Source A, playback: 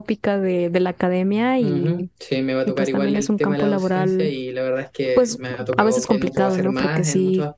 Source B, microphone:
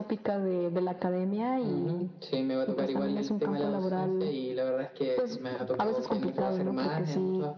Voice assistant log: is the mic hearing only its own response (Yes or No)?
Yes